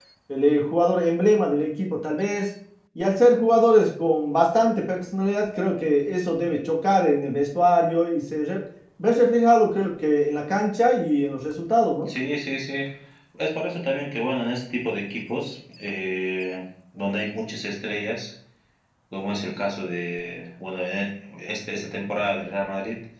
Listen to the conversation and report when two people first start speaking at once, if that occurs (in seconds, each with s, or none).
none